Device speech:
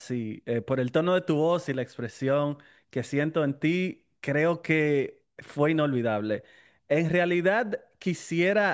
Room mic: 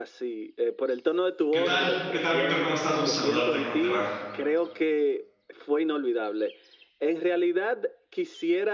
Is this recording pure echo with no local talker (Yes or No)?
No